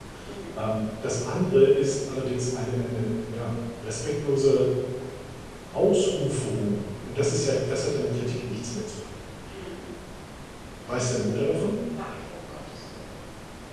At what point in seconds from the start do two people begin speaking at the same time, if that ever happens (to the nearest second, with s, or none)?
none